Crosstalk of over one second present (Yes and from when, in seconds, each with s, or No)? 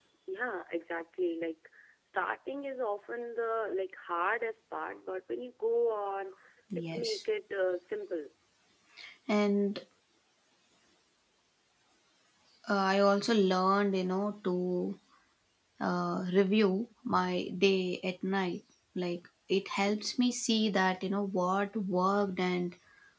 No